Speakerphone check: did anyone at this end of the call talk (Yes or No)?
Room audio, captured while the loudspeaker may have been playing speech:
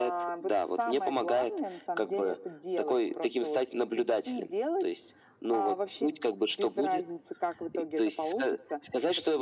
No